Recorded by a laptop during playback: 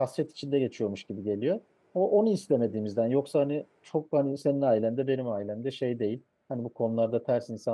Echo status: none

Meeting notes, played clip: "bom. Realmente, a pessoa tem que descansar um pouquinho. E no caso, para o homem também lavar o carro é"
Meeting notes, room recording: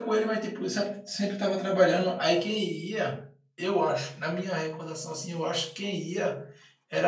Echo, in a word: none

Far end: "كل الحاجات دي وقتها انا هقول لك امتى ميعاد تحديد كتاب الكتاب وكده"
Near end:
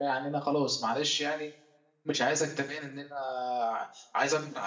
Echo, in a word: none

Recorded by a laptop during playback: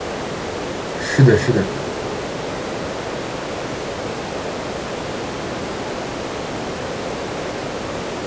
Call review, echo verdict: none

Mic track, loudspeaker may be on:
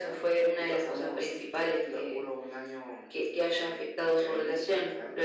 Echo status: present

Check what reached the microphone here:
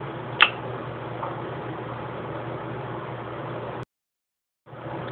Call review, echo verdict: none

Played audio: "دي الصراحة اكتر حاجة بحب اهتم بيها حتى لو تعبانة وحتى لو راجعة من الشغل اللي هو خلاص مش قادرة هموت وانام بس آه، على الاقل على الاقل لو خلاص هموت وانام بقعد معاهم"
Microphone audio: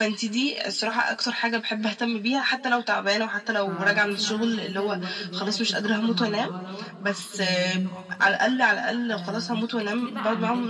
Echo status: present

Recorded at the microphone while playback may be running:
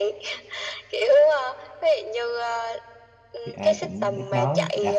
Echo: present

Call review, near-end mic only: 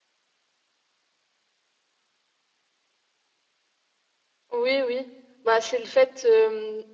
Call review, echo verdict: none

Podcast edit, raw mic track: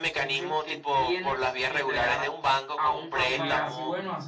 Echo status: present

